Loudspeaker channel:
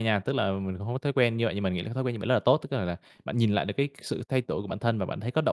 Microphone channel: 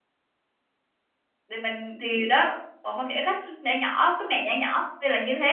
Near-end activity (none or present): present